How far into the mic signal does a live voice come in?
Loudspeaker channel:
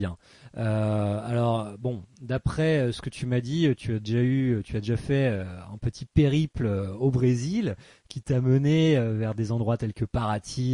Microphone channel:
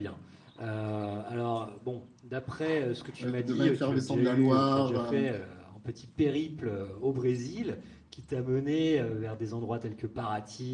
3.2 s

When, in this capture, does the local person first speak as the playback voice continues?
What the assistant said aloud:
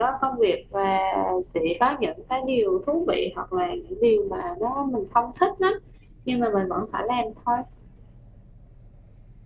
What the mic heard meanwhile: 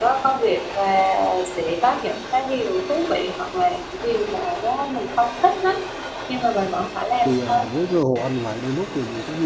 7.2 s

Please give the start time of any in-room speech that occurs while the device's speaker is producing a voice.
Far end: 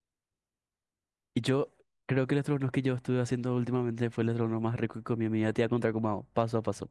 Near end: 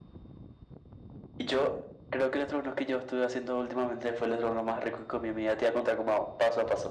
none

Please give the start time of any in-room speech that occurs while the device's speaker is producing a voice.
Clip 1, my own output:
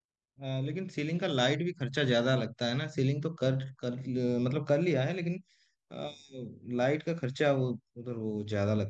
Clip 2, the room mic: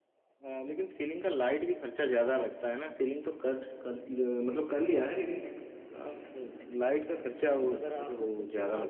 7.5 s

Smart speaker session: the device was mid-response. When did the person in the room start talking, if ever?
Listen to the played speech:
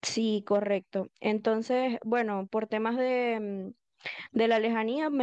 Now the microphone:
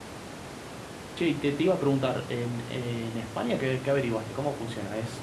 1.1 s

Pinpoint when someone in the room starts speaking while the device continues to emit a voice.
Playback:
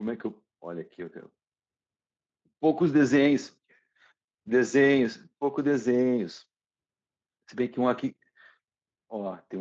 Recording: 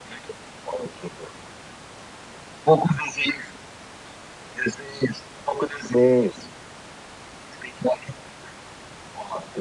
none

